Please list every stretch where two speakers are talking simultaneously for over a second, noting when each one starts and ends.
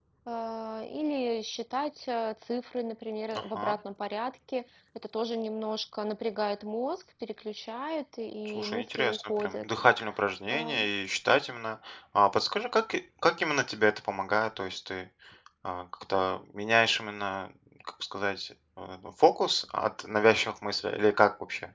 8.5-9.7

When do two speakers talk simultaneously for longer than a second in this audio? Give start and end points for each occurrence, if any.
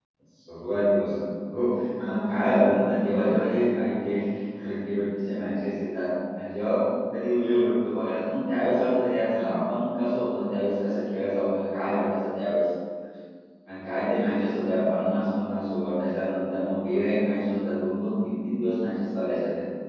2.0-3.4

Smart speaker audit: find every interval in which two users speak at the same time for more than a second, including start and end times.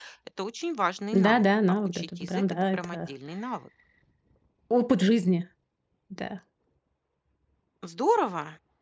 1.2-3.1

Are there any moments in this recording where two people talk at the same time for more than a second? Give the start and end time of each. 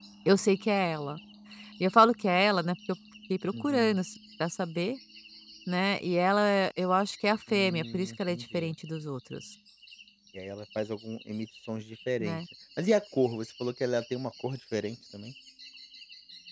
7.5-8.7

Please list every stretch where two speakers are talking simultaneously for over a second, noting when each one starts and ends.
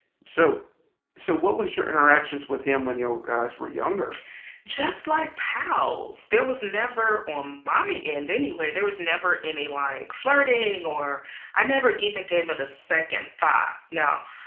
none

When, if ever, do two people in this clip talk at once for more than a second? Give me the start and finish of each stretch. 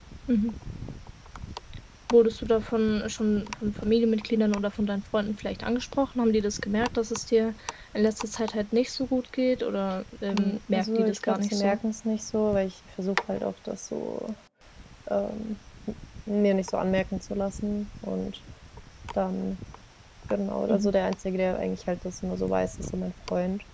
10.3-11.8

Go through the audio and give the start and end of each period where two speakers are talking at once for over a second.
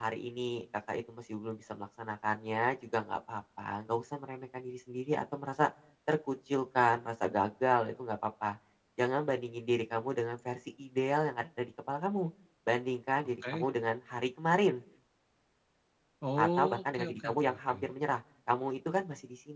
16.4-17.8

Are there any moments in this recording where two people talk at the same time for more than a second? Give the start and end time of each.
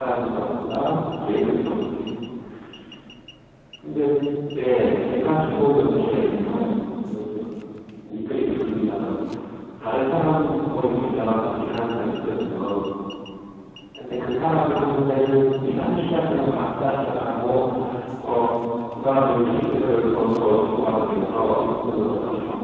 5.1-6.8

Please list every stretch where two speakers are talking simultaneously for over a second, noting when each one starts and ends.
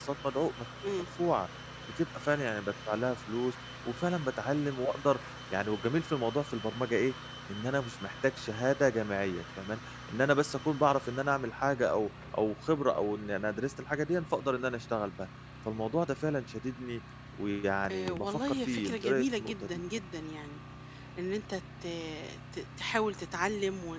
17.9-19.8

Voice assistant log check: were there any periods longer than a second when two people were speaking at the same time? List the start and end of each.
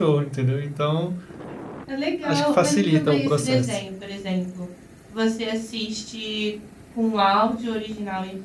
2.2-3.8

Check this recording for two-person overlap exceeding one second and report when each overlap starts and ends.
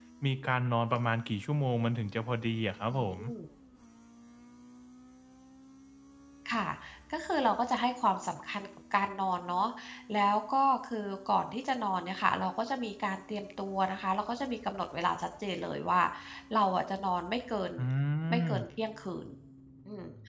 none

